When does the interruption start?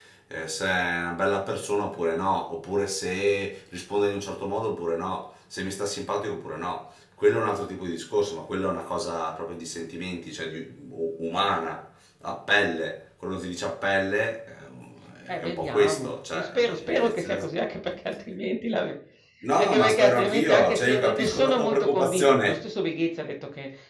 15.3 s

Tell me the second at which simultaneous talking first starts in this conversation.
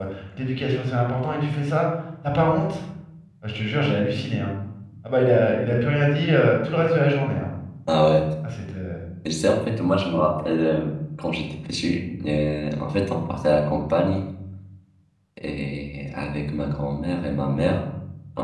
none

